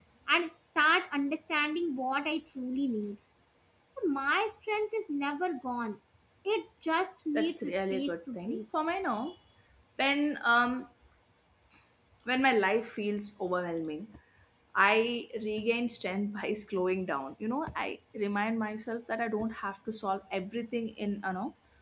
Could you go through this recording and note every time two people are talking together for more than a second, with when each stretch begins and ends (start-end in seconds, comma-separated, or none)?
7.3-8.6